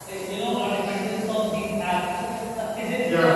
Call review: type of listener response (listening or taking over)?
listening